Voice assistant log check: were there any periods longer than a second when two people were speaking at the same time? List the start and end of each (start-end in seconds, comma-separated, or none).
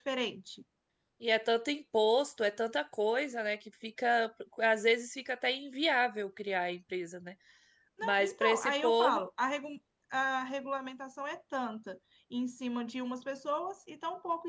8.0-9.2